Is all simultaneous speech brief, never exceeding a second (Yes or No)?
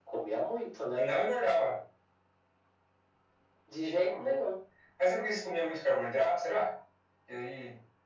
Yes